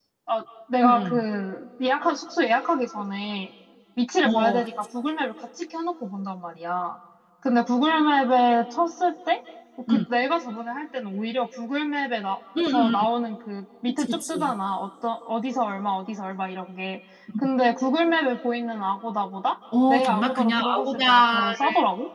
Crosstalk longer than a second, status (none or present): present